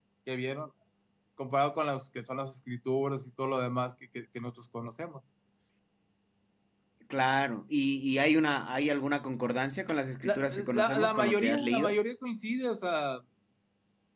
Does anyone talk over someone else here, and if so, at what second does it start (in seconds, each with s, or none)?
10.2 s